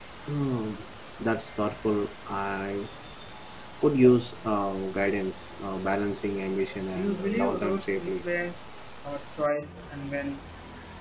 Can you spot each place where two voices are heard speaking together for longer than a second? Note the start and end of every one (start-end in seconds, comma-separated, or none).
6.9-8.2